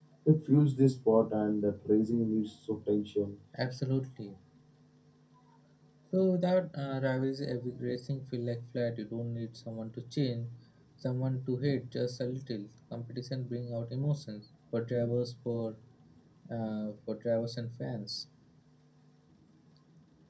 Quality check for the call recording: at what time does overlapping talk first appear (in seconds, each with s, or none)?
none